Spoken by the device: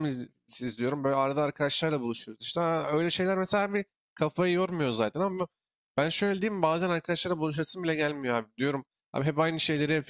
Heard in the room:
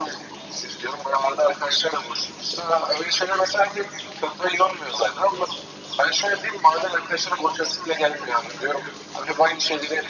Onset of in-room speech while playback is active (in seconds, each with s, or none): none